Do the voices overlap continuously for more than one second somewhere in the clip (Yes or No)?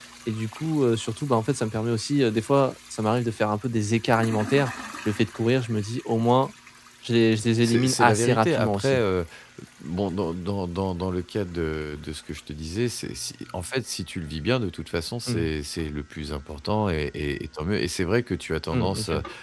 Yes